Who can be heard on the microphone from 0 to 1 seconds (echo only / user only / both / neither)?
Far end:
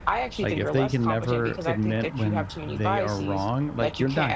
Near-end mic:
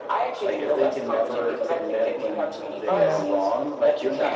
echo only